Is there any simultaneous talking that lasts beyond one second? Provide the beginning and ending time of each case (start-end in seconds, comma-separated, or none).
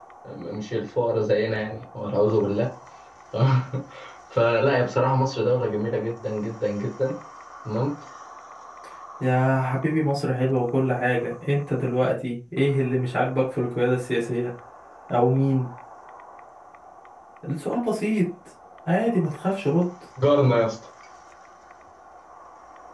none